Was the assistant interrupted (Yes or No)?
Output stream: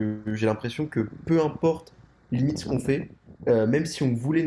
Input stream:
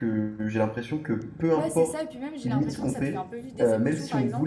Yes